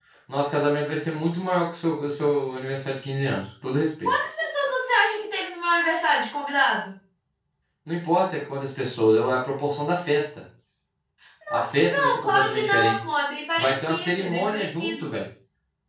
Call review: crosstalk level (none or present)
present